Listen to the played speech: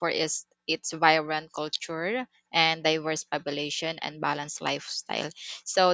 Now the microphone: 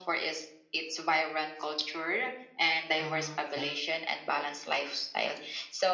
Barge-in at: 3.0 s

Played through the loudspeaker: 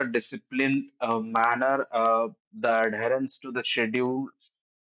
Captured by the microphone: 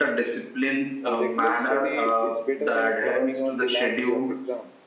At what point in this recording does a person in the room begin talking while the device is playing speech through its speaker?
1.1 s

